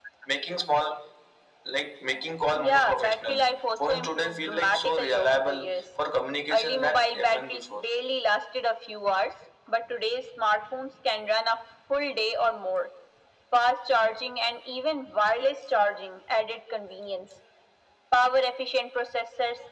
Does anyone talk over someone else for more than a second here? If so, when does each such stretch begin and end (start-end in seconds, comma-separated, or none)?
2.5-5.7, 6.5-7.8